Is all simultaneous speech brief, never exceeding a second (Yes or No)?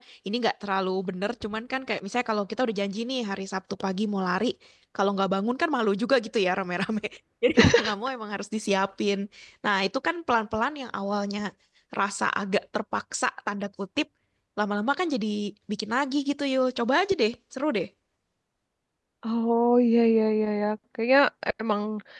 Yes